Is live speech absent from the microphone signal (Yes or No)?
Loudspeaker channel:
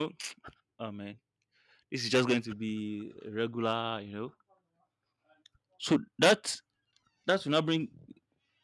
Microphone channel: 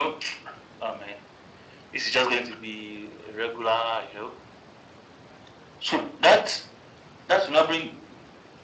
Yes